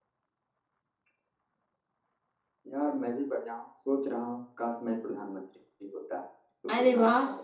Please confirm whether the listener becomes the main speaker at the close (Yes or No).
Yes